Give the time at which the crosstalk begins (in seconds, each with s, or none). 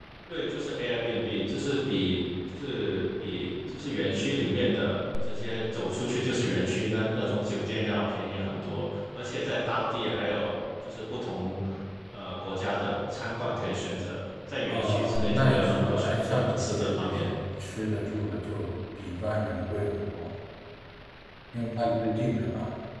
14.7 s